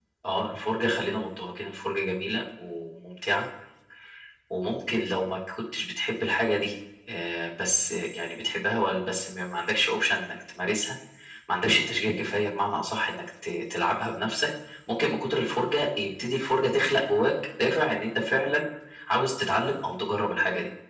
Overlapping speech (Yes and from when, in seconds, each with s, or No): No